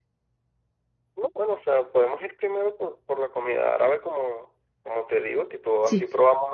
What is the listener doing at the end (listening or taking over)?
listening